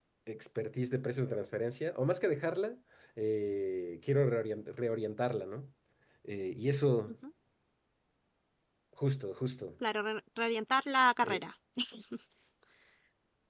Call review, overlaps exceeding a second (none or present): none